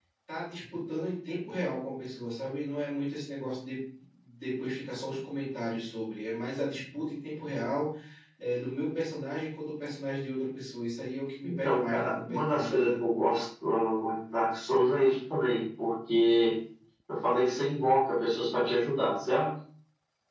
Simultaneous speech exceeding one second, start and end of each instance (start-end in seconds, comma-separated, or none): 11.4-12.9